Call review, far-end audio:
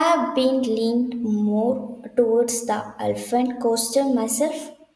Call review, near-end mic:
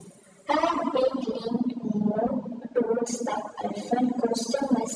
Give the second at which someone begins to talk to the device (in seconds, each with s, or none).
none